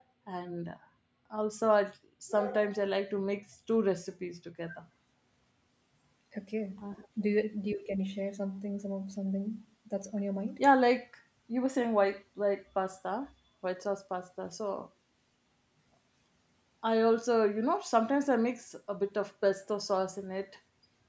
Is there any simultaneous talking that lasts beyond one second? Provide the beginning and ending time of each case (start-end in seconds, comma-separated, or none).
none